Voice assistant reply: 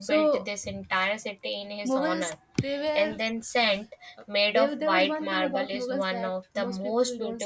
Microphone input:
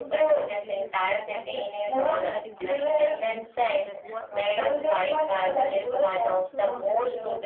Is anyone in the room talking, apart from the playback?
Yes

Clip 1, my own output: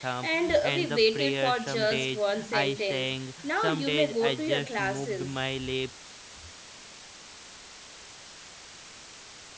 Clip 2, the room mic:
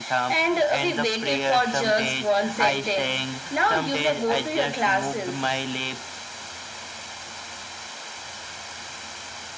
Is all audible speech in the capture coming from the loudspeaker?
Yes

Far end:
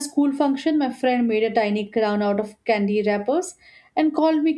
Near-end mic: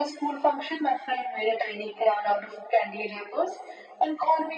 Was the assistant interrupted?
No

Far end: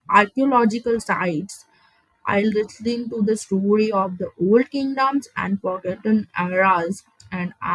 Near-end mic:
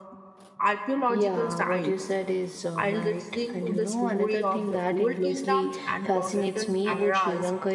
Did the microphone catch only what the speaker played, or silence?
No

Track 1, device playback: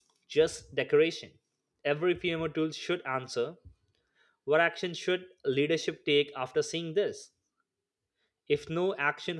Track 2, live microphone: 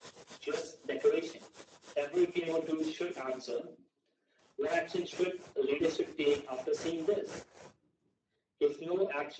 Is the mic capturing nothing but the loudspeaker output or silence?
Yes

